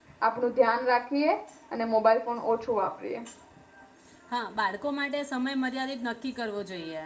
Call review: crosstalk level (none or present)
none